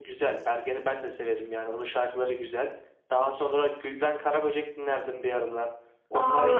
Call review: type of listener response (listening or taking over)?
taking over